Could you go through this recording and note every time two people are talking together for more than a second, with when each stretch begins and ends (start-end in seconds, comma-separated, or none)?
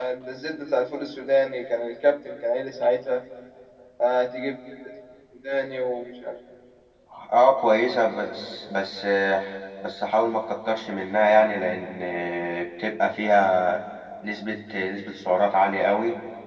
none